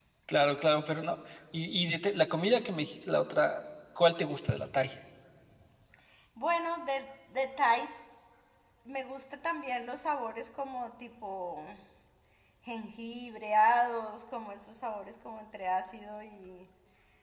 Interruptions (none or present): none